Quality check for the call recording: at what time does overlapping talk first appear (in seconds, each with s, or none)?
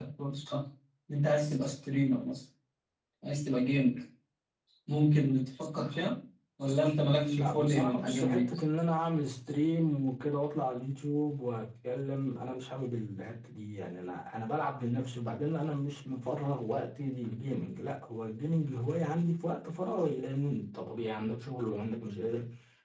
7.1 s